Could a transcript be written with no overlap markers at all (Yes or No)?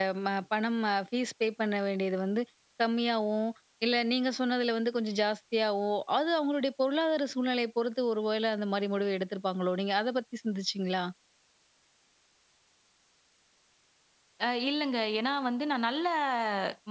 Yes